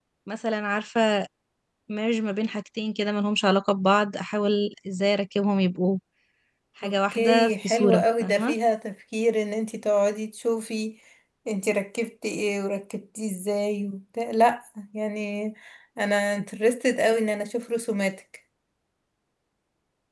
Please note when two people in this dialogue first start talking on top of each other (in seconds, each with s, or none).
6.8 s